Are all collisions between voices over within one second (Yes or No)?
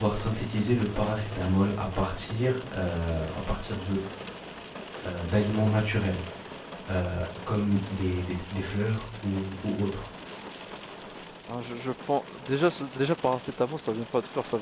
Yes